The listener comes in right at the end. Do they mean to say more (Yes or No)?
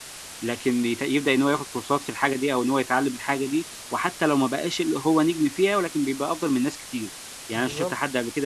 No